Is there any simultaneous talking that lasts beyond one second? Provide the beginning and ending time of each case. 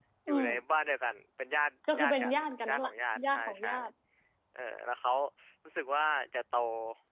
2.0-3.7

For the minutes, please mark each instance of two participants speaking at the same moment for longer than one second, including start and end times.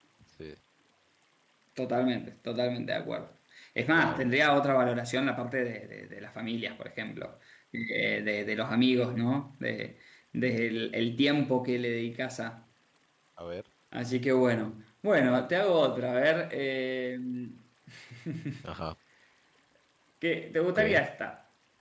none

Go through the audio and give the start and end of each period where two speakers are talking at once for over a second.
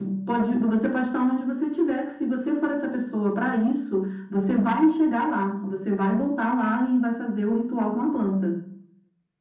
none

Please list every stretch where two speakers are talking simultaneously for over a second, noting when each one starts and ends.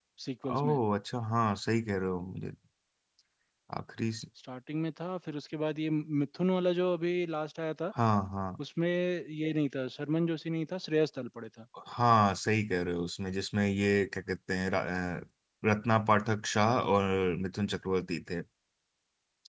none

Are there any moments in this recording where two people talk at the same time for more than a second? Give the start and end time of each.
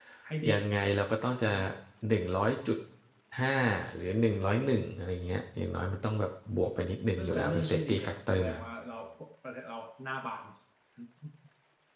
7.2-8.6

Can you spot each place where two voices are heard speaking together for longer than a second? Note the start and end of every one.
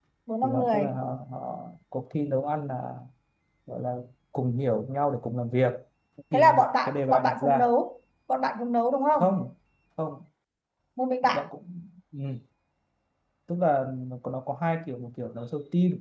6.3-7.7

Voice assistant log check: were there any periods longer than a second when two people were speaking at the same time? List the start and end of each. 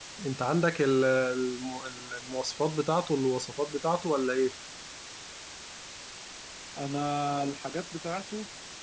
none

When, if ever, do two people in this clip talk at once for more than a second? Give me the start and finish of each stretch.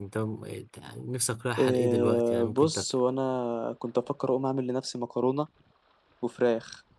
1.6-2.8

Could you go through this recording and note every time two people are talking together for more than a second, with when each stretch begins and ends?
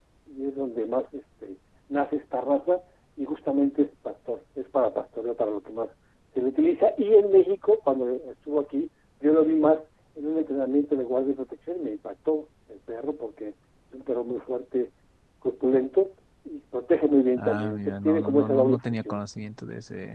17.4-19.2

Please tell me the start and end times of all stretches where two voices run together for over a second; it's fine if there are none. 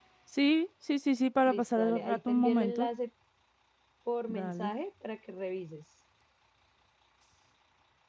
1.4-2.9

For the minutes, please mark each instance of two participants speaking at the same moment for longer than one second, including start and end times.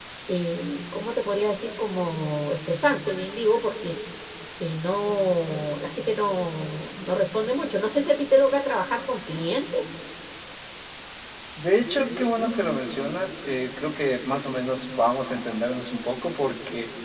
none

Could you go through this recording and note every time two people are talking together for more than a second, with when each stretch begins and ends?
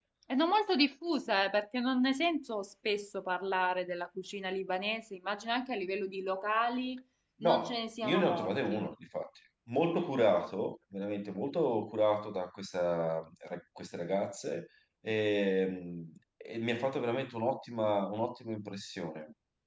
7.4-8.9

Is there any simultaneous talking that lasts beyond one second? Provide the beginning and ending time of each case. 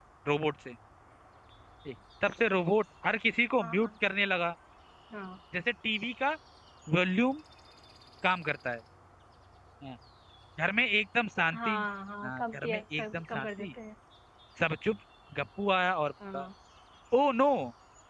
12.2-13.7

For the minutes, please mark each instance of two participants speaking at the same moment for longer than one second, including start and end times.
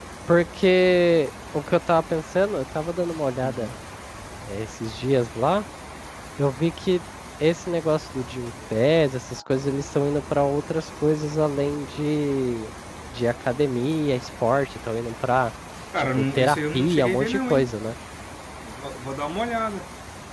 16.0-17.7

